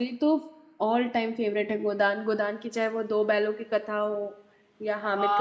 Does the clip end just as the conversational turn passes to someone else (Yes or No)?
Yes